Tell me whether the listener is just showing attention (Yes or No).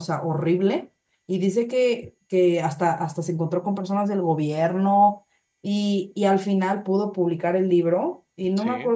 Yes